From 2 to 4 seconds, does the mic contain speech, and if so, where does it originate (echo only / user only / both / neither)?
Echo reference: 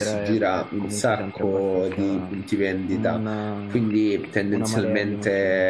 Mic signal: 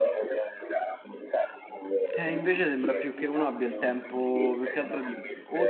both